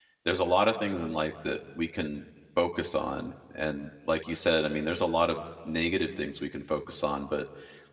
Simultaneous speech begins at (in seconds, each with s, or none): none